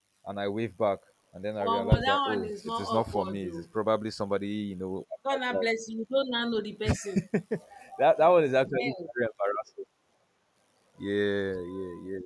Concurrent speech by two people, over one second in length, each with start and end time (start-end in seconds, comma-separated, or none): 1.6-3.6